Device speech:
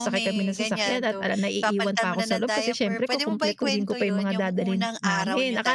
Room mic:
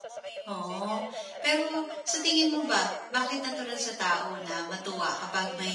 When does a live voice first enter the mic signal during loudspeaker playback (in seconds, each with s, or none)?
0.5 s